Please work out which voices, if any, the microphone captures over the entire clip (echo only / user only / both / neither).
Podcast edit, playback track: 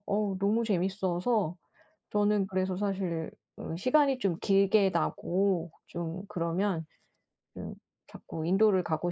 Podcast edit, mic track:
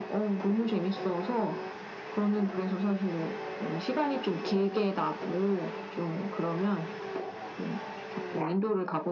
echo only